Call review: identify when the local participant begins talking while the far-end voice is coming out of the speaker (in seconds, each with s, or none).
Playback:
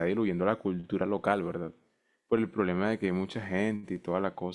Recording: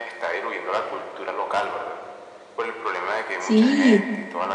3.4 s